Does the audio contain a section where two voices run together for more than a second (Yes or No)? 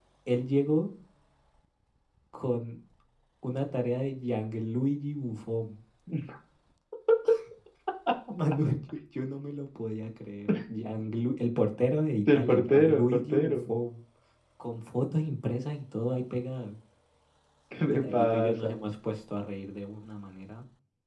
Yes